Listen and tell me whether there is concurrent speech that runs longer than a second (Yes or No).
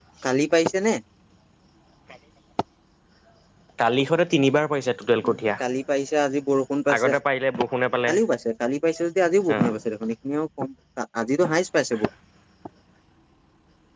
No